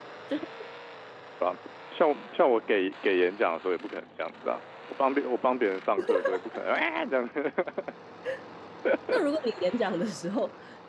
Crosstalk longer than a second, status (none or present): none